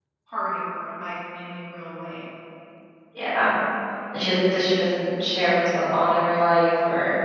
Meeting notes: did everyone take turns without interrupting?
Yes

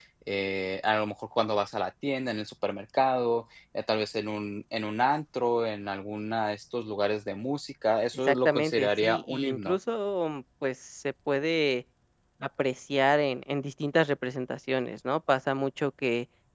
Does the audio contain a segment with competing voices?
Yes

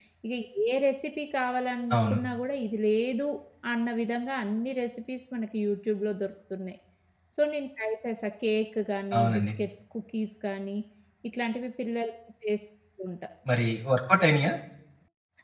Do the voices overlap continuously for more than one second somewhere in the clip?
No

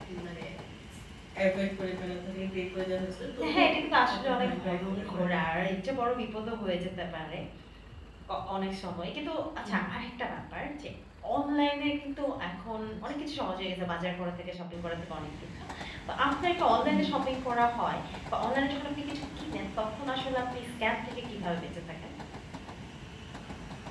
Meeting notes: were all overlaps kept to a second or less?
No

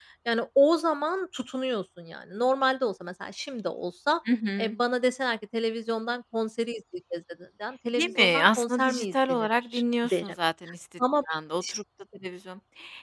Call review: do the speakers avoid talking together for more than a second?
No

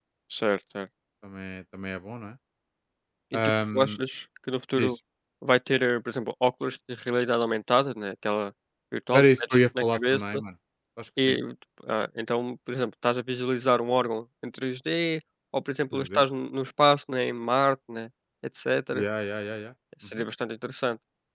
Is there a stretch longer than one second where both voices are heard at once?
Yes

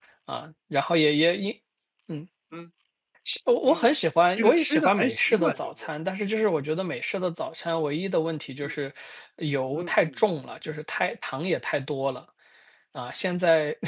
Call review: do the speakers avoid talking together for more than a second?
No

